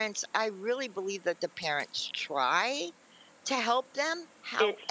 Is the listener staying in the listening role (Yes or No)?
Yes